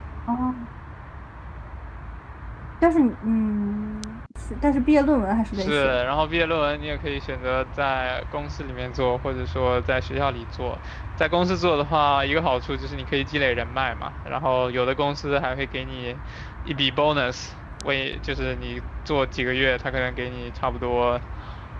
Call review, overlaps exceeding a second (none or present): none